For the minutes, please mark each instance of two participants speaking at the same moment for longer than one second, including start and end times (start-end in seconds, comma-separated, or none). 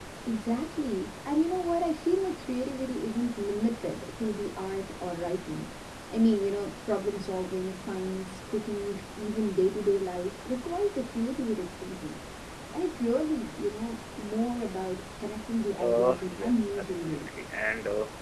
15.8-17.3